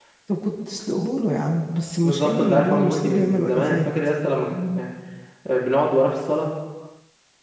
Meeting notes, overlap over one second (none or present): present